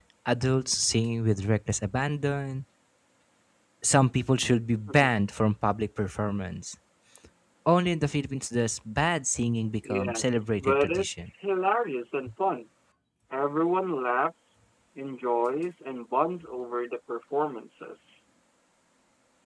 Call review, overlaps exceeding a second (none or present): present